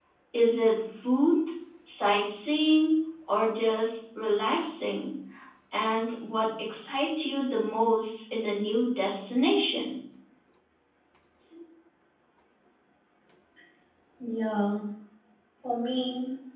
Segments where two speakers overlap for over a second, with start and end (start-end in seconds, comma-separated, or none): none